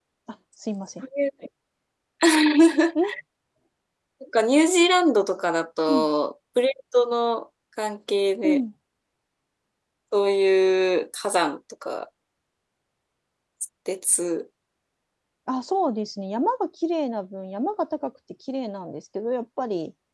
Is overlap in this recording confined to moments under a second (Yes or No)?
Yes